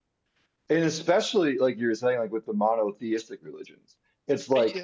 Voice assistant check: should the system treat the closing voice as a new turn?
No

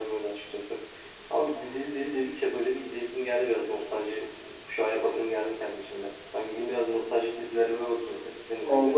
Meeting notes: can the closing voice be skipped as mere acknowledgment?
No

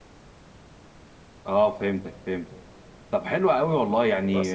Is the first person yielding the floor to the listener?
No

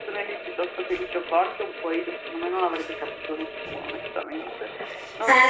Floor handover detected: Yes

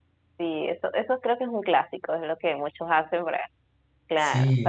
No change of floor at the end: Yes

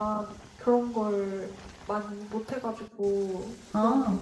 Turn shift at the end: No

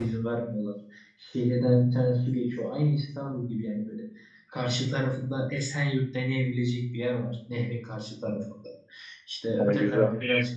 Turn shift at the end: No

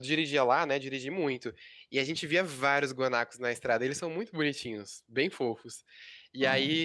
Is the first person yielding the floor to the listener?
No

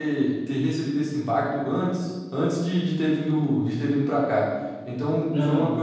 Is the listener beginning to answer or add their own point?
No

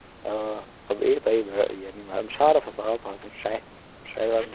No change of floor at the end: No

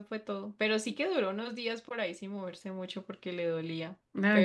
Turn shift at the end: Yes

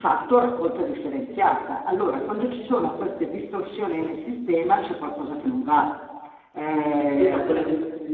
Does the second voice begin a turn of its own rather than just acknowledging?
Yes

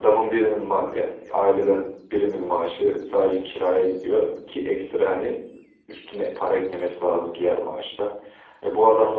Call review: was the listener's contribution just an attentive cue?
Yes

